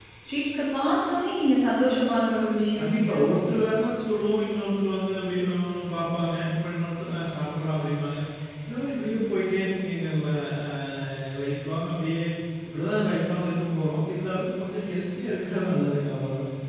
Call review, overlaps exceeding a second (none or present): none